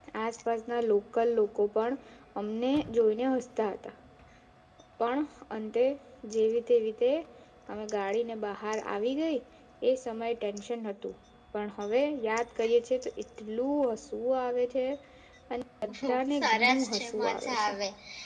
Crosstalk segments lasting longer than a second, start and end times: 16.4-17.7

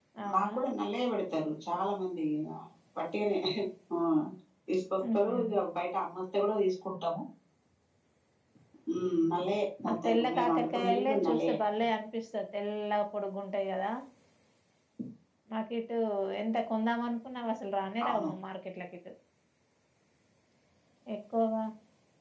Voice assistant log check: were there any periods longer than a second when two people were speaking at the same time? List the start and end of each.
9.8-11.6

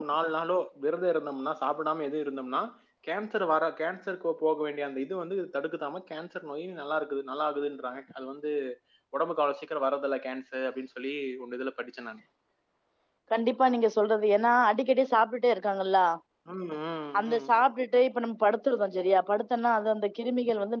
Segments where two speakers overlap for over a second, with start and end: none

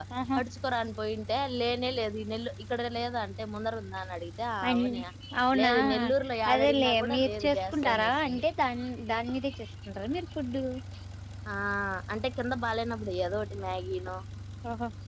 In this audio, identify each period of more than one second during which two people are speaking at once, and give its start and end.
6.5-8.4

